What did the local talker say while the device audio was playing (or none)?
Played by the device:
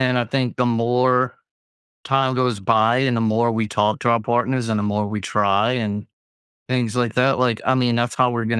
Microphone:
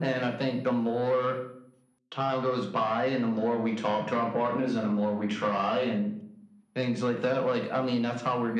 none